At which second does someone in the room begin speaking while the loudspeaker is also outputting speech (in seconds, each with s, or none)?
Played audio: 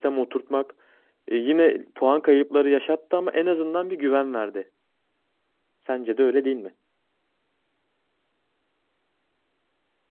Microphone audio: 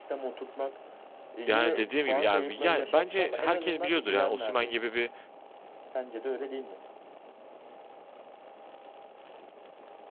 1.4 s